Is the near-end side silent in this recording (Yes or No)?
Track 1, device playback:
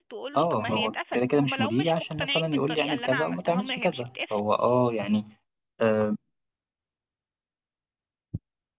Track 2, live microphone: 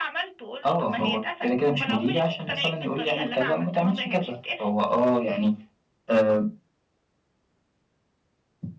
Yes